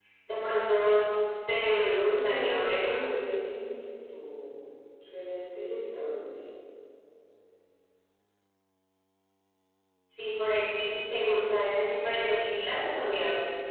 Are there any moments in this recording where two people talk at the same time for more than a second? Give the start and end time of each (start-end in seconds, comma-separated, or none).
1.7-3.0